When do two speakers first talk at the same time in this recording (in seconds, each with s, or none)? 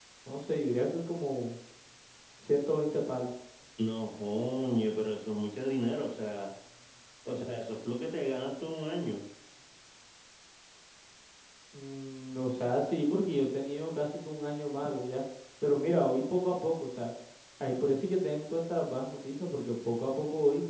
none